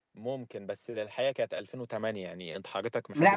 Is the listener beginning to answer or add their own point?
Yes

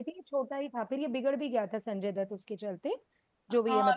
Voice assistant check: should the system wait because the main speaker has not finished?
No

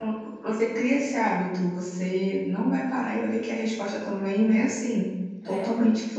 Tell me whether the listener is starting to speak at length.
No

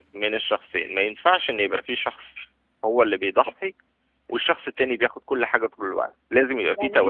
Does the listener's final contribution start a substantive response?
Yes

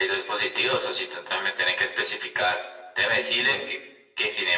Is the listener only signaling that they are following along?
Yes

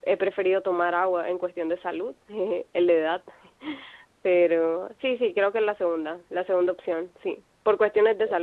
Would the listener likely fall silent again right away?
Yes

